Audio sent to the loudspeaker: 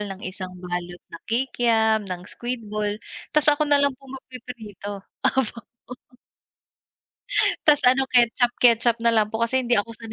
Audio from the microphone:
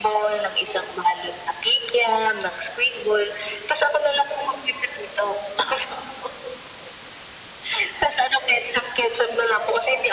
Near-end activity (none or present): none